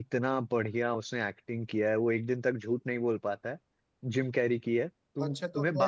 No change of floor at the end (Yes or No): No